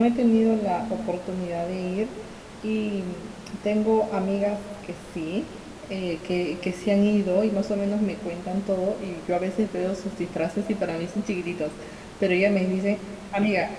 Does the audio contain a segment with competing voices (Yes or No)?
No